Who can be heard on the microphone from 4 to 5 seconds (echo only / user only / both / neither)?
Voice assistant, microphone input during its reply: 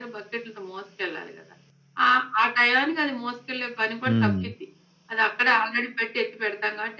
both